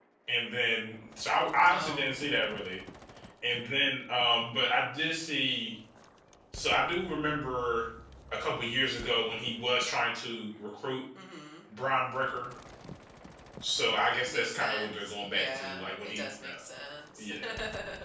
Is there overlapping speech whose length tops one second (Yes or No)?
Yes